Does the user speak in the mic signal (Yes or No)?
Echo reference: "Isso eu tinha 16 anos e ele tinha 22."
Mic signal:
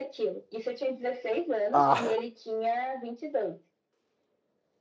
Yes